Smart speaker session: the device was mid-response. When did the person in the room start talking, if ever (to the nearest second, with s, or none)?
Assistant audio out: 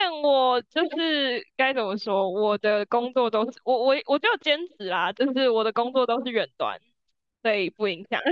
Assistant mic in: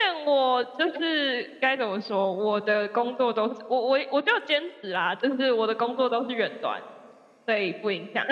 none